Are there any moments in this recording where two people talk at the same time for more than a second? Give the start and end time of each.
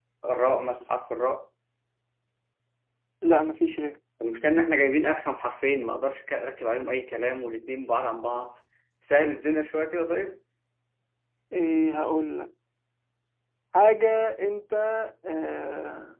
none

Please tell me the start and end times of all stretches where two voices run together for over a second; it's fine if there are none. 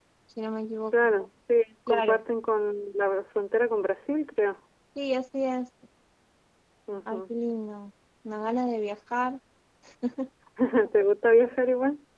none

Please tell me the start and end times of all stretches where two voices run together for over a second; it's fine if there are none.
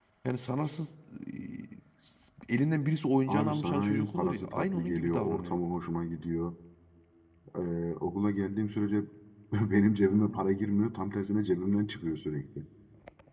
3.3-5.6

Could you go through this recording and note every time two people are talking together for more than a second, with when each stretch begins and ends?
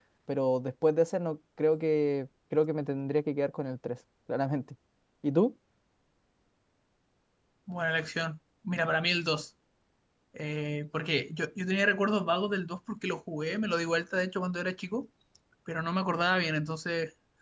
none

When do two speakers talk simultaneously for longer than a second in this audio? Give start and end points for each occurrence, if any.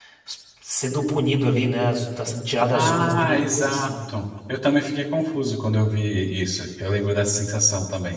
2.7-4.0

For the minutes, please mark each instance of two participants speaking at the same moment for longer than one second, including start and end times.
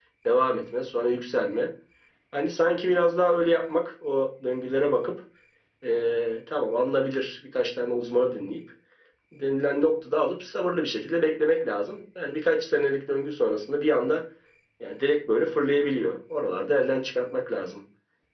none

